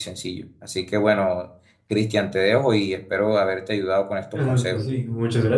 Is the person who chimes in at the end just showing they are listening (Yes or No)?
No